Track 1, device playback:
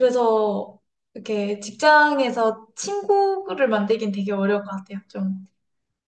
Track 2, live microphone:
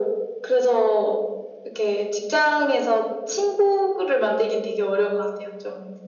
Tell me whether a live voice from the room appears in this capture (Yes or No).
No